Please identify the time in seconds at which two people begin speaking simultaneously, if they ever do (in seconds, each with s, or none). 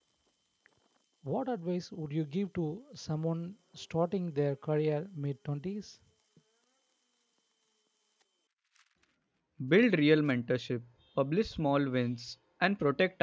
none